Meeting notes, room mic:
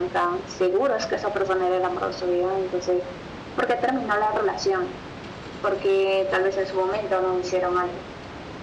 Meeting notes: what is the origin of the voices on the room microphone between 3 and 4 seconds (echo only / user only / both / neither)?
echo only